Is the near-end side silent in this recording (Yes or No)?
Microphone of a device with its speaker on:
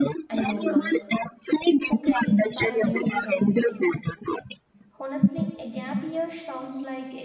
No